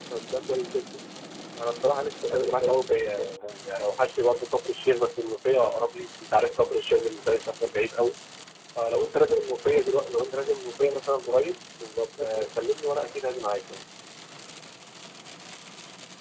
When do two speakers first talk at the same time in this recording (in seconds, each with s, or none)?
2.3 s